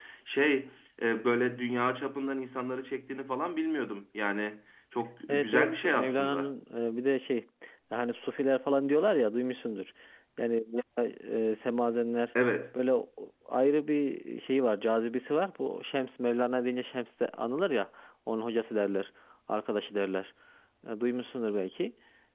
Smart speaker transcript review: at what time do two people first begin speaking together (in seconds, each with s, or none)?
5.3 s